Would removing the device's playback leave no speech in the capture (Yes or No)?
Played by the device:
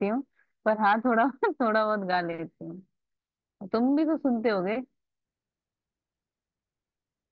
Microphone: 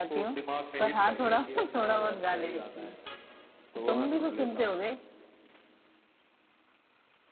No